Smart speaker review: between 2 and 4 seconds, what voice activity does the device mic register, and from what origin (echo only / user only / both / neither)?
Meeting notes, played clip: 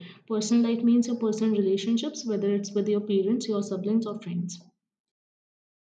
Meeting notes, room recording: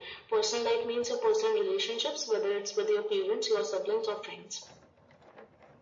echo only